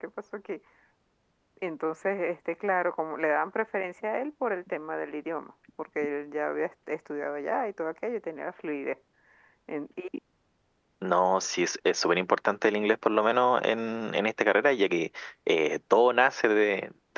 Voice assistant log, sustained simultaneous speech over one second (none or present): none